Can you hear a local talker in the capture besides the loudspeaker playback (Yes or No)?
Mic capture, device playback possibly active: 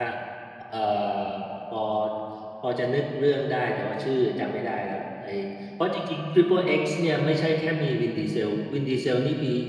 Yes